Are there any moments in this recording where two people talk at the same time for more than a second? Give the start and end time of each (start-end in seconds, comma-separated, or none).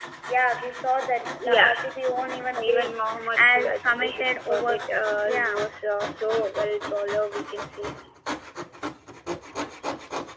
2.6-4.8